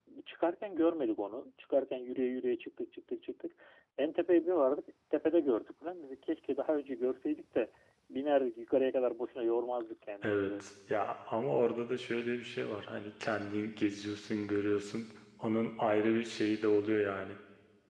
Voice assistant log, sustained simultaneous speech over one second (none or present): none